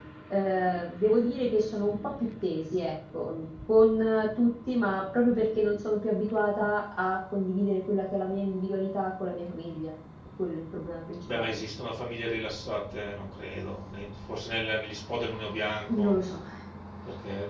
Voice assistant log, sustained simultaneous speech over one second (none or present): none